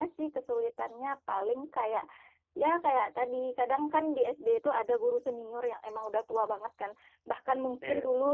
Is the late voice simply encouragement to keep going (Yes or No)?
Yes